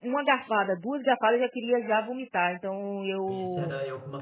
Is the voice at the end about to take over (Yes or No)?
Yes